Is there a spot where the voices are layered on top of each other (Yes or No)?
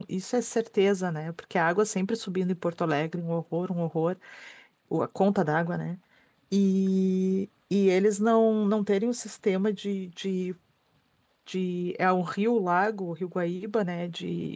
No